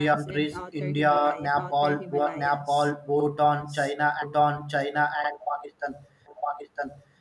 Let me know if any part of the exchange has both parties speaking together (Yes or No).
Yes